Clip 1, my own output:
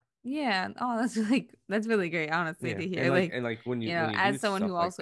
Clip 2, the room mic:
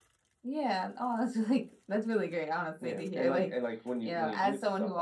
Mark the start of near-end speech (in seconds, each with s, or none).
none